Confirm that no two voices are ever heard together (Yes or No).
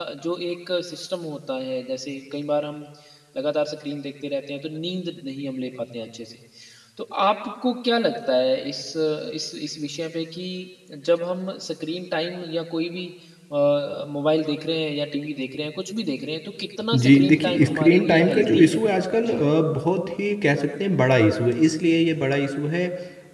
No